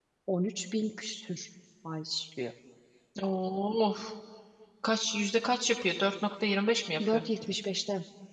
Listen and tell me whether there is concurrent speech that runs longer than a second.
No

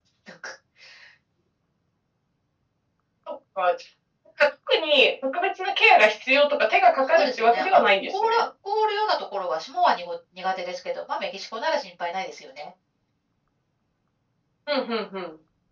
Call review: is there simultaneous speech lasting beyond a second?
Yes, from 7.1 s

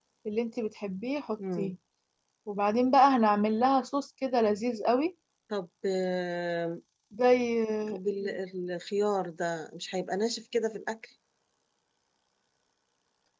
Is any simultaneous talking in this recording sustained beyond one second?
No

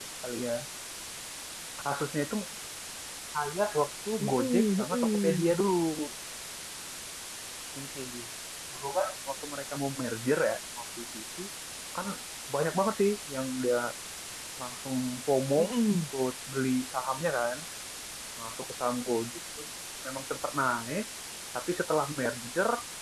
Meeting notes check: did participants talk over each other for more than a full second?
Yes, from 4.2 s

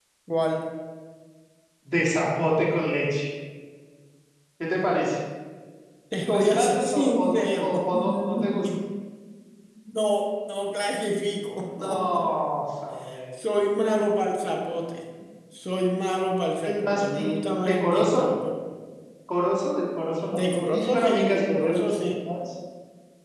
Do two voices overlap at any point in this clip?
Yes, from 6.3 s

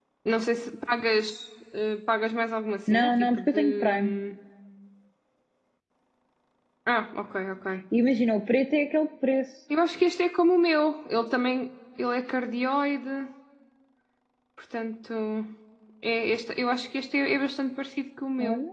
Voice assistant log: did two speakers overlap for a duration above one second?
Yes, from 2.9 s

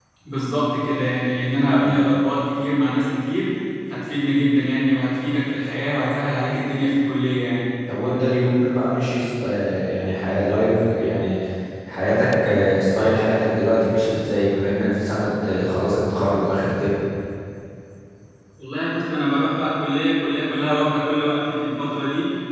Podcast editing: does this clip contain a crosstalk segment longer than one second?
No

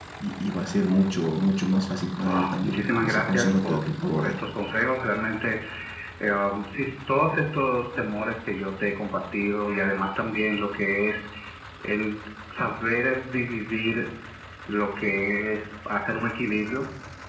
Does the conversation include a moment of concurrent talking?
Yes, from 2.2 s

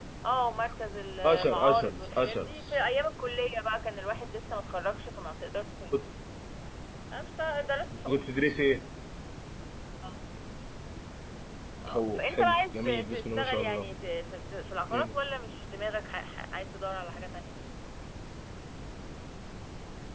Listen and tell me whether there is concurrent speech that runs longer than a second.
Yes, from 1.2 s

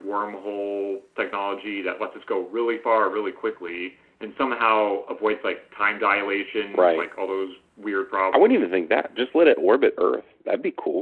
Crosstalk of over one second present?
No

